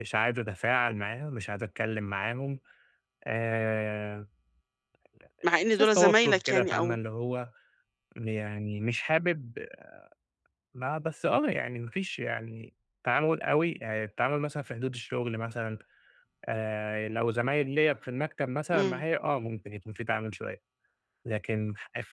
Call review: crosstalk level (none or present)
present